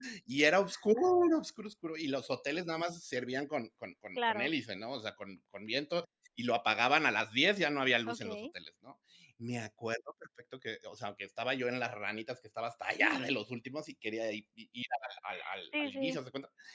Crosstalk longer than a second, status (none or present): none